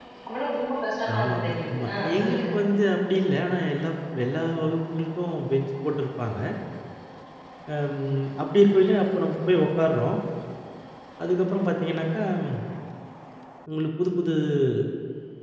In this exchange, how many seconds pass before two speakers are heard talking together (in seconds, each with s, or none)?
1.1 s